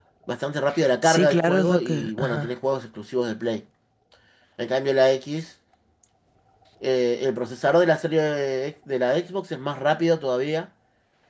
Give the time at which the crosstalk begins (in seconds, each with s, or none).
1.0 s